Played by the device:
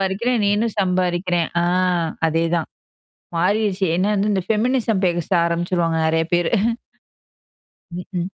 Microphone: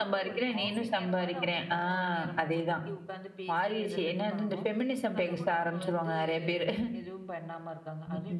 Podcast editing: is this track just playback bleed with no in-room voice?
No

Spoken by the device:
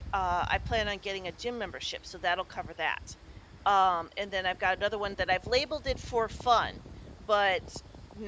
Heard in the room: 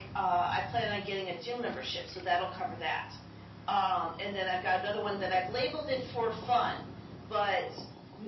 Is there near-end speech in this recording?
No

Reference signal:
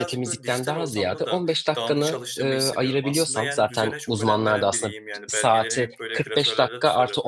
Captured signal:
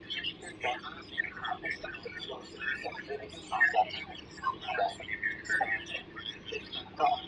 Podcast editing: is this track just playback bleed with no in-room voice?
Yes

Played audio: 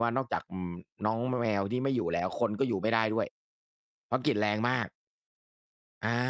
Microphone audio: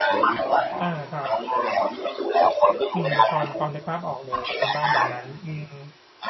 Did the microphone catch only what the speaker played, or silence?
No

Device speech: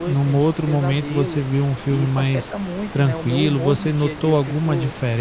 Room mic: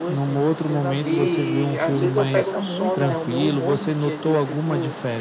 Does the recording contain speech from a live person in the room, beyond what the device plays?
Yes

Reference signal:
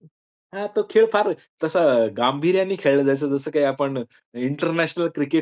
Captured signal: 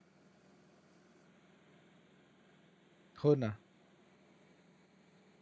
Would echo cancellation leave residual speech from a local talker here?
Yes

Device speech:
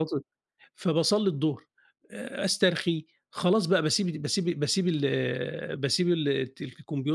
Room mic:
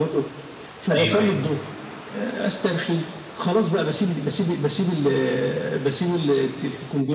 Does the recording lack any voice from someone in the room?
No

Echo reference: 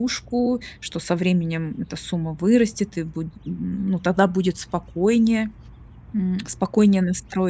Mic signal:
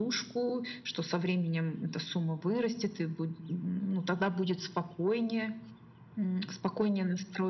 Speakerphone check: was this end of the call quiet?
Yes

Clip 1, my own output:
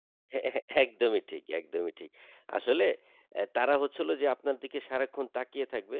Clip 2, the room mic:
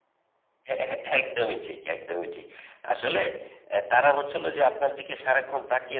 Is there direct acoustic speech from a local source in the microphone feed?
No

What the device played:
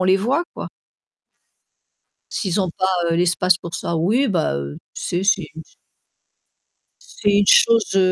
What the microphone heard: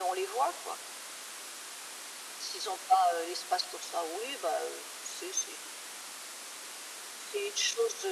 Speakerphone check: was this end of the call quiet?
Yes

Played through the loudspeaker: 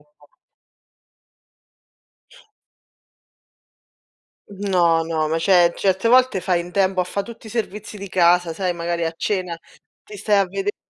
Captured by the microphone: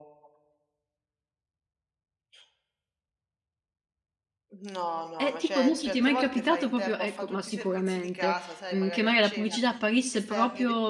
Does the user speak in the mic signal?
Yes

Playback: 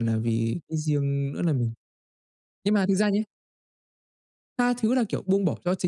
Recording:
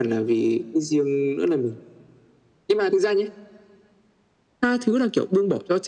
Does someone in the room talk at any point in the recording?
No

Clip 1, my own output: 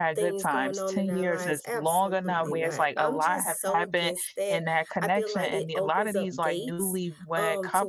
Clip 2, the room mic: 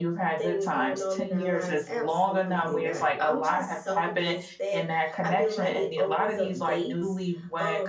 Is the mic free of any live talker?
Yes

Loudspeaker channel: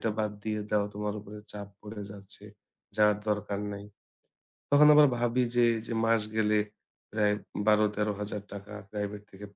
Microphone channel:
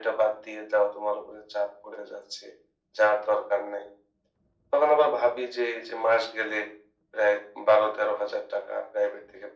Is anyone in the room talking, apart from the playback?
No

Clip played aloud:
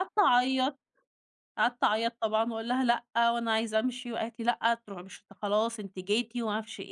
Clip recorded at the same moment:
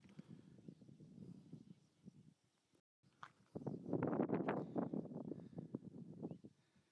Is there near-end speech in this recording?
No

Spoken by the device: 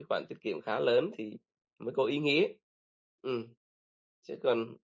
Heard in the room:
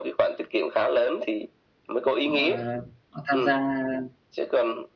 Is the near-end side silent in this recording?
No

